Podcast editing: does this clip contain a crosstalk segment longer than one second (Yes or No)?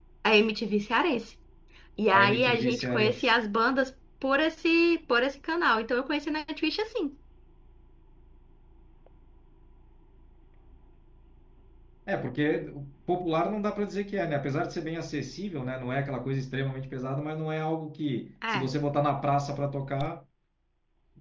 Yes